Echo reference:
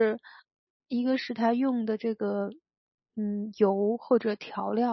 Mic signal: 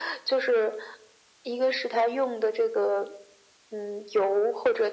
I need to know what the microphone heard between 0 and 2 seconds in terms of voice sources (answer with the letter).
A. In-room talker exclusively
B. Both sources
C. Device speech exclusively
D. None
C